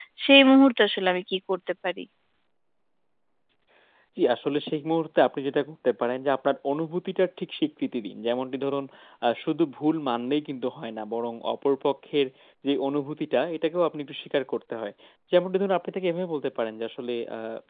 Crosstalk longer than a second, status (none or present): none